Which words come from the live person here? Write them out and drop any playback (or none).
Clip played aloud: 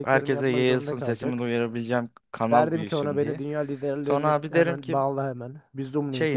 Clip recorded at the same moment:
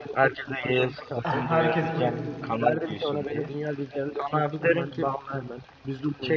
Herkes bunu izlesin.